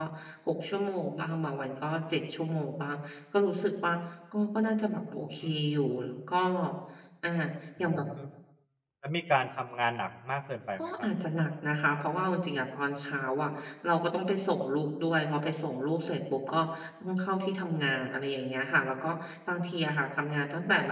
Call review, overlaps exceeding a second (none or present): none